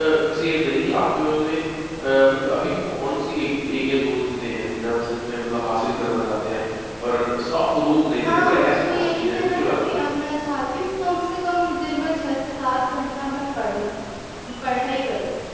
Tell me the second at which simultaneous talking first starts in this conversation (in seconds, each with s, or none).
8.2 s